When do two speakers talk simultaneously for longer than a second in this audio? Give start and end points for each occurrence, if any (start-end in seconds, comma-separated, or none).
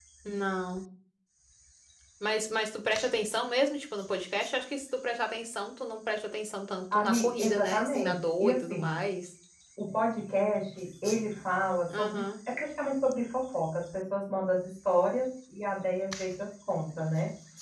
6.9-9.0